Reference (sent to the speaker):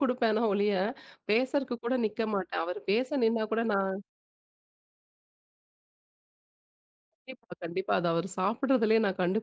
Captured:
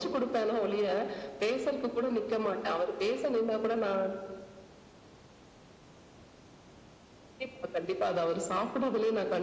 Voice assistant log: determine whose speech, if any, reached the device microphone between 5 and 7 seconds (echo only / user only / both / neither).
neither